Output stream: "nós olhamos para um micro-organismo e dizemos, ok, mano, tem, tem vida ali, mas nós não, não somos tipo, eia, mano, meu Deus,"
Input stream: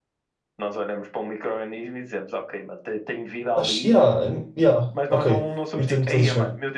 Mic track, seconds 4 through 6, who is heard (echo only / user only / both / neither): both